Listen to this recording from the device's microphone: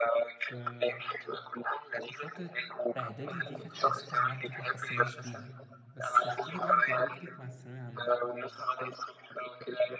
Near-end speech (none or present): present